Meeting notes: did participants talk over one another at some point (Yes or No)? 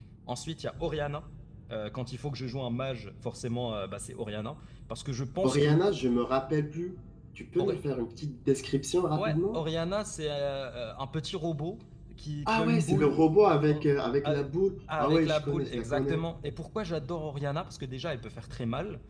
Yes